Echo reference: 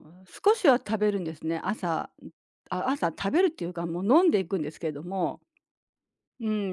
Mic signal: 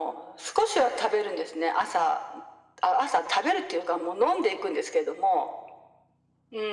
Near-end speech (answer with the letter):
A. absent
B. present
A